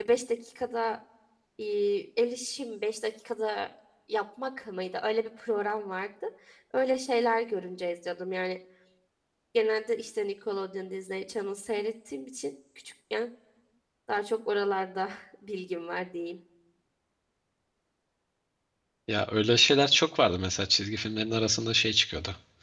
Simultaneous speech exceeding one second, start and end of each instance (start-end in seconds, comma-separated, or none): none